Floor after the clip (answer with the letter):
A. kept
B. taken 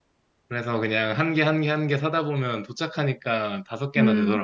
B